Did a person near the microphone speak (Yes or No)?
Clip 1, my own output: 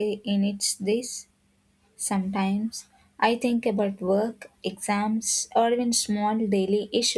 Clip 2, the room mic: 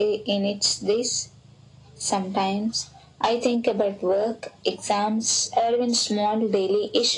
No